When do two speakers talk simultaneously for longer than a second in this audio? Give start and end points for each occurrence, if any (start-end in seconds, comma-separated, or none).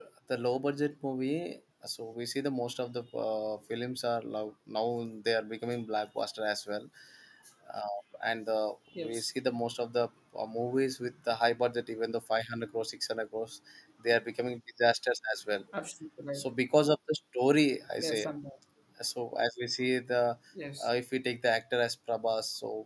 none